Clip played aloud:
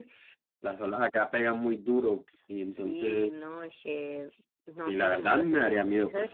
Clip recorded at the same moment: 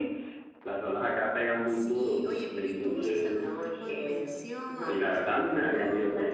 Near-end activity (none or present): present